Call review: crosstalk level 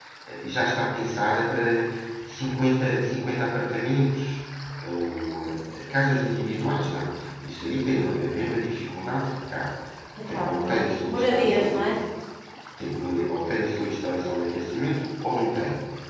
present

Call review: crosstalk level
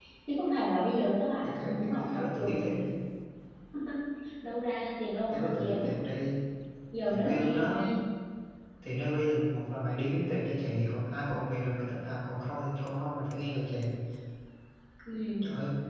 present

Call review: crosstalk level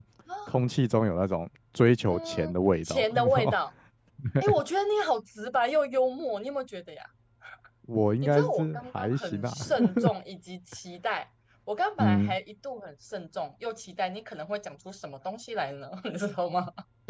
present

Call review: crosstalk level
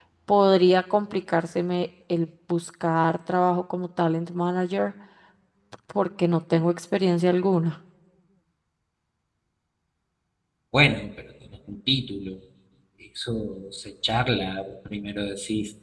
none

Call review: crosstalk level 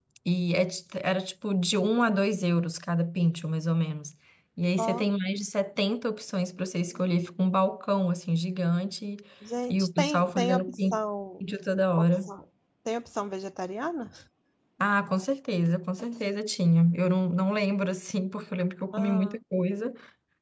present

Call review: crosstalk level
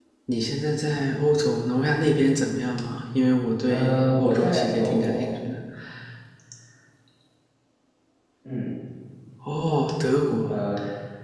present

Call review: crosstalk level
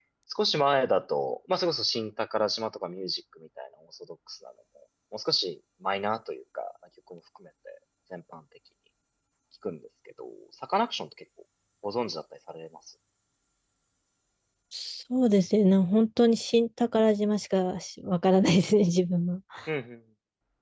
none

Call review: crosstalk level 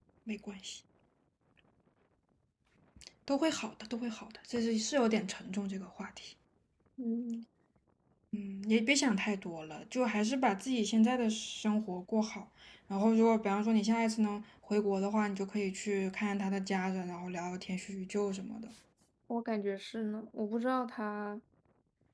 none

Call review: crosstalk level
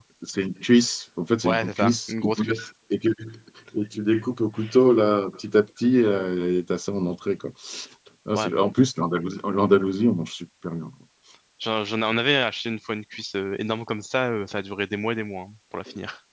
present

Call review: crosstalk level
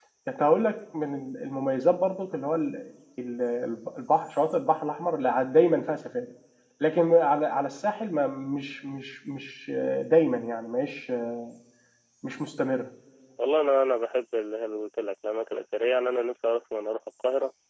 none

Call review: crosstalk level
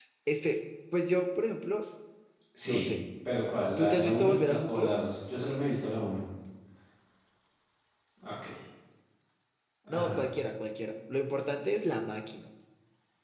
present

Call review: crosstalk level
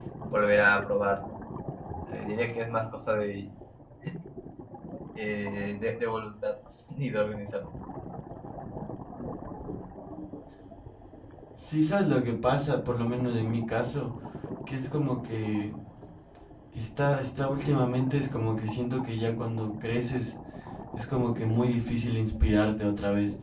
none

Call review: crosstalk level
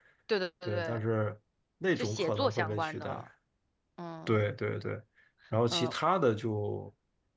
present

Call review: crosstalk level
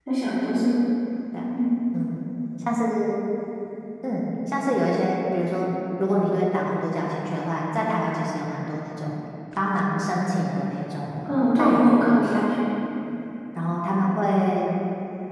present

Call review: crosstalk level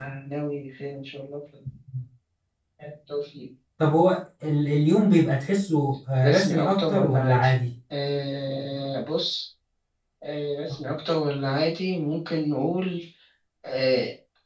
present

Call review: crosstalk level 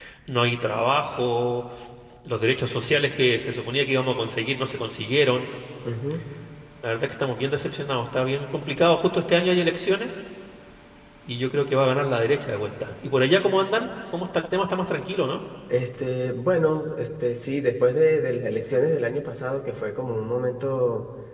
none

